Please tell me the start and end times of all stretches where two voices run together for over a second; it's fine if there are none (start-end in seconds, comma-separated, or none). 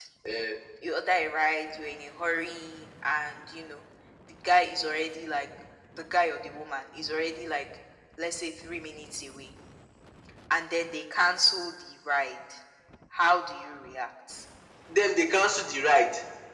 none